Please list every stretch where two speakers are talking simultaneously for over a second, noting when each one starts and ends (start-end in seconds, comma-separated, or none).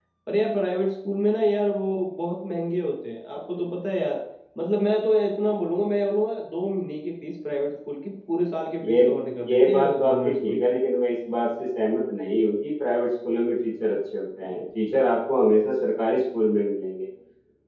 9.5-10.7